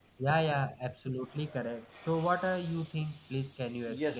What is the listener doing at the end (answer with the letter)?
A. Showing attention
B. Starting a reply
B